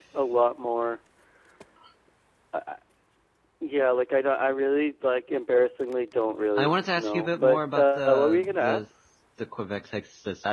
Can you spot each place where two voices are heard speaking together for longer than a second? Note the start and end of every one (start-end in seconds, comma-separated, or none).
6.6-8.8